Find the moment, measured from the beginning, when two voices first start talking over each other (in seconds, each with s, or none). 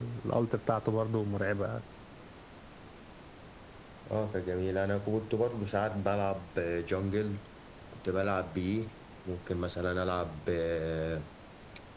none